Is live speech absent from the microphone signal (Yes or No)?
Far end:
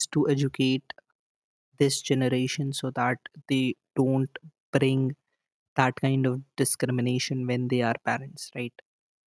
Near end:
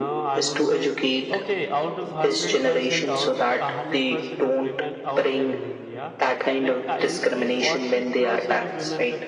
No